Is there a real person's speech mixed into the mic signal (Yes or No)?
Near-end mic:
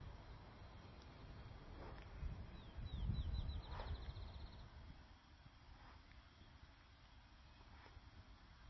No